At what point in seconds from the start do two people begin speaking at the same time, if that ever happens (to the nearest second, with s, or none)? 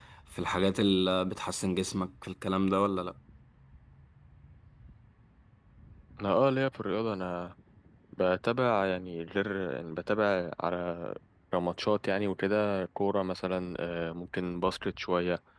none